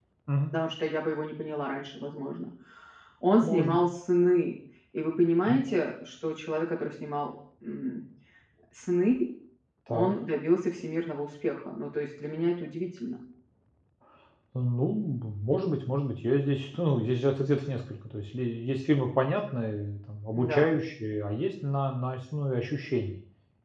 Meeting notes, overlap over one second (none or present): none